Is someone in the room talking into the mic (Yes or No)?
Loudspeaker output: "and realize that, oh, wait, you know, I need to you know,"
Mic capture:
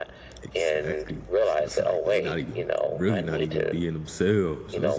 Yes